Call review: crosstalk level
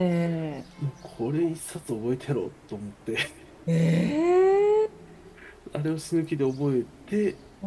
none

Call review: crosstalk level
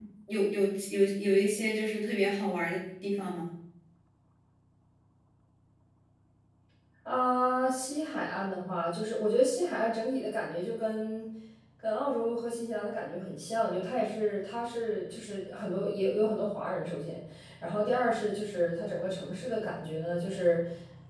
none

